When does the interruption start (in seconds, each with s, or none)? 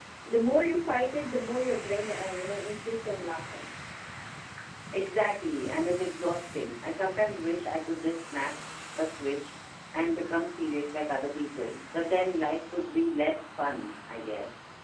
none